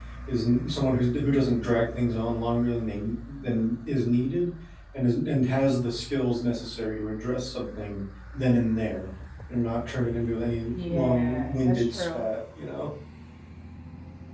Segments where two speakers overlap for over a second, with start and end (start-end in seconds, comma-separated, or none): 10.7-12.3